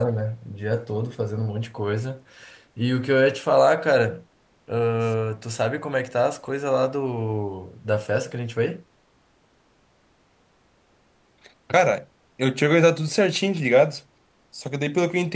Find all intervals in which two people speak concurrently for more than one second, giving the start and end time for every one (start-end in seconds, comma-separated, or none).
none